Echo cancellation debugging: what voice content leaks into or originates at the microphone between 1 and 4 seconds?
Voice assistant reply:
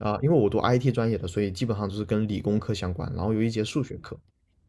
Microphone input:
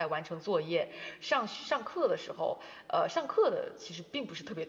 user only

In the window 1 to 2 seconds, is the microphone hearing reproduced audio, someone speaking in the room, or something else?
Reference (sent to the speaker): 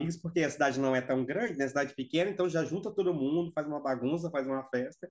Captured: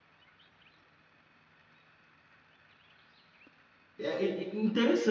neither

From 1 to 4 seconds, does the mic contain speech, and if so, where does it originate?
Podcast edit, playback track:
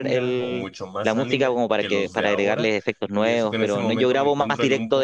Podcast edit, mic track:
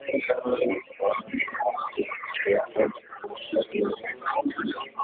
echo only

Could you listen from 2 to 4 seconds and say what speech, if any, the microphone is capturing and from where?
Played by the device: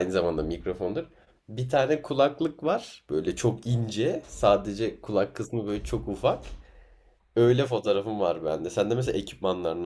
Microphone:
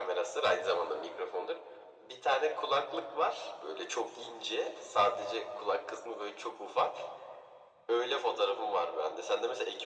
echo only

